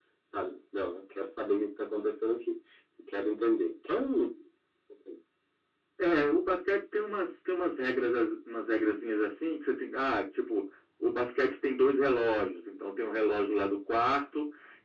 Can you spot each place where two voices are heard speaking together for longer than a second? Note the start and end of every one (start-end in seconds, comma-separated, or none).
none